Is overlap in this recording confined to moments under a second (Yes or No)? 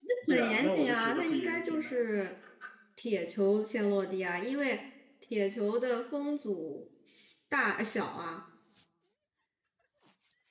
No